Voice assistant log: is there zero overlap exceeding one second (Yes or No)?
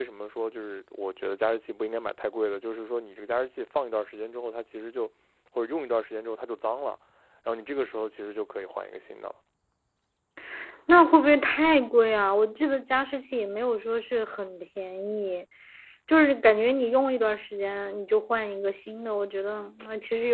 Yes